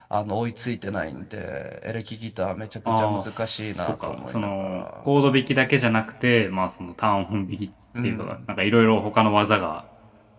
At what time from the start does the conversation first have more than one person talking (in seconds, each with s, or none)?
3.0 s